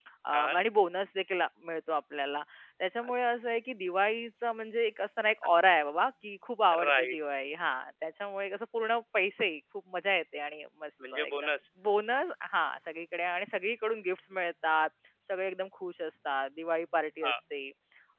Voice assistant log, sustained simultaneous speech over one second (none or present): none